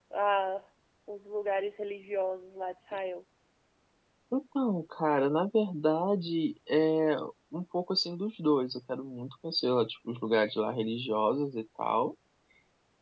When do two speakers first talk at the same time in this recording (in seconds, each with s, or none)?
none